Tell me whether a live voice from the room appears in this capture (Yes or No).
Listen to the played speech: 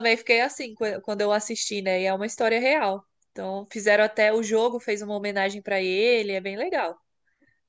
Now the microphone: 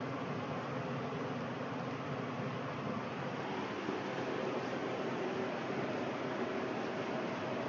No